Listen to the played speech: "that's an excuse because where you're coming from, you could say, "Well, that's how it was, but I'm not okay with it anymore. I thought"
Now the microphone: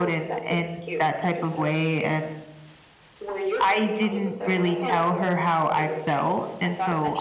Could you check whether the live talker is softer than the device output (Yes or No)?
No